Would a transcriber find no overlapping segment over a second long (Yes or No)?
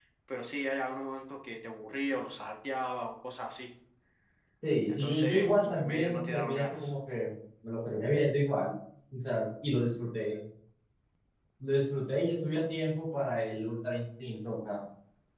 No